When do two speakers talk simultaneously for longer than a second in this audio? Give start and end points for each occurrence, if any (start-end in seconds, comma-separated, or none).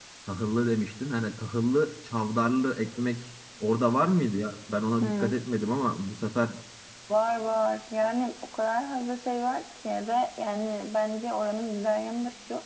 none